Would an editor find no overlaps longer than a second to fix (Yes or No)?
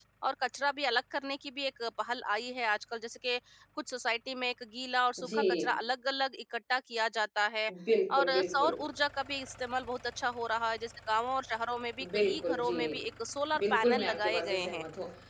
No